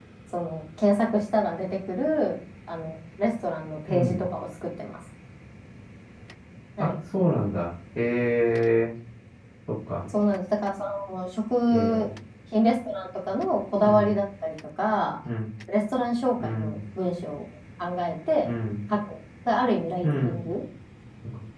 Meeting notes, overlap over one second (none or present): none